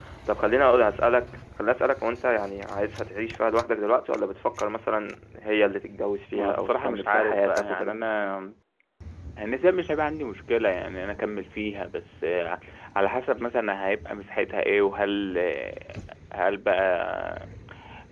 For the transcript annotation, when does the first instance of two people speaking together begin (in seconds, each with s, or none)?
6.3 s